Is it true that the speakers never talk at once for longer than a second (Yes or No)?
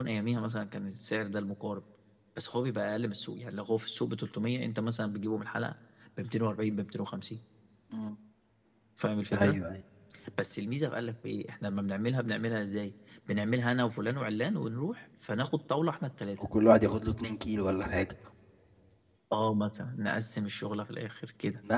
Yes